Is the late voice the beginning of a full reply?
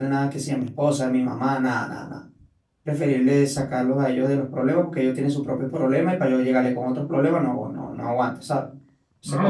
Yes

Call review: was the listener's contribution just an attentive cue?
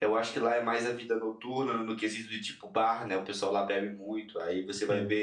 Yes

